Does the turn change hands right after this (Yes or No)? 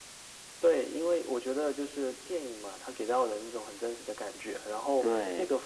No